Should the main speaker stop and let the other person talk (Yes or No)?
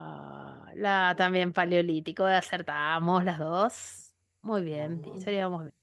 No